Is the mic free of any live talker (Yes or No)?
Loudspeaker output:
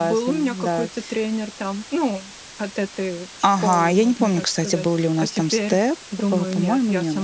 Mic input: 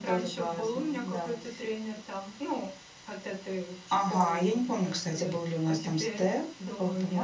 Yes